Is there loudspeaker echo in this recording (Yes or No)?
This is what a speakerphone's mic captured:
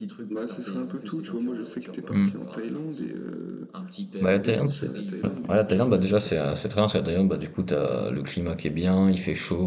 Yes